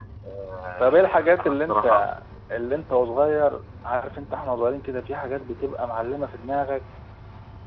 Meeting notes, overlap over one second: present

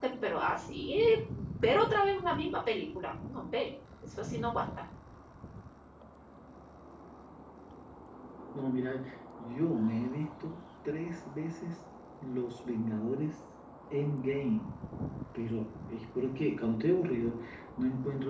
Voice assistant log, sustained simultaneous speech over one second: none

